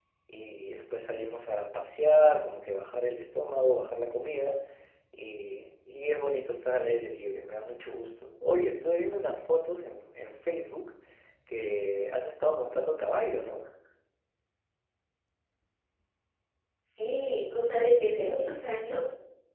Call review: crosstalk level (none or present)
none